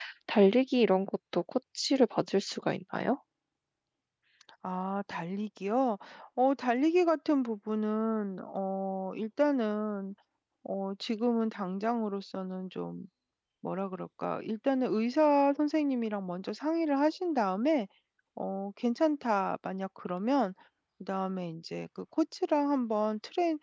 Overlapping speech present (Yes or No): No